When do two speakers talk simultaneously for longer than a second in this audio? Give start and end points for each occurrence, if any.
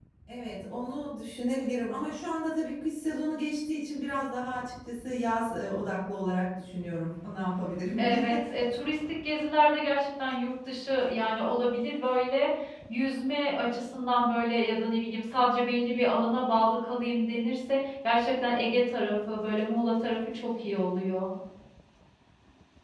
none

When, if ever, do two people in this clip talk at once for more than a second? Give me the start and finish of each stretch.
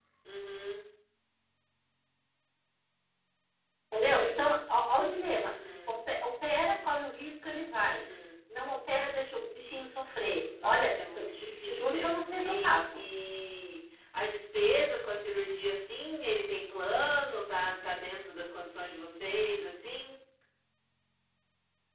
10.6-13.0

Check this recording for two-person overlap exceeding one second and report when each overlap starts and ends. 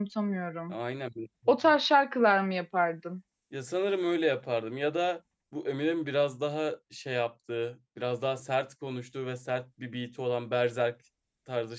none

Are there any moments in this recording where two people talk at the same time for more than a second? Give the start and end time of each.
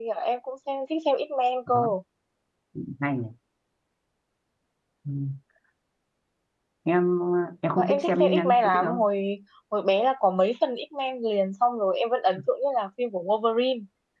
7.8-9.1

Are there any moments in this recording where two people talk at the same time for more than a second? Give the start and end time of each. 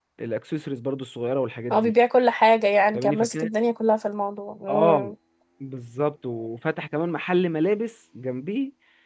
none

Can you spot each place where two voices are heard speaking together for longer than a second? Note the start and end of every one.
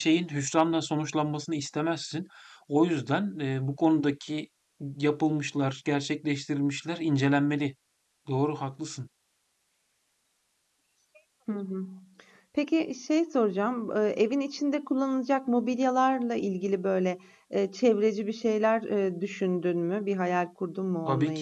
none

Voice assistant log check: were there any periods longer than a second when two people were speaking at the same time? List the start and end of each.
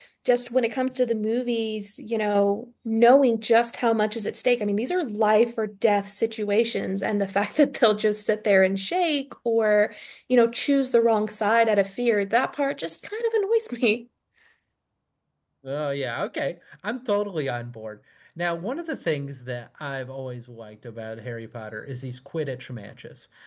none

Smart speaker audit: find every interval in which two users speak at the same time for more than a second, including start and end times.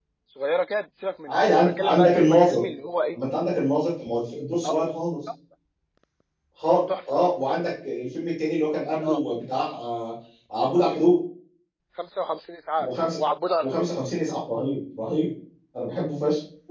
1.3-2.6

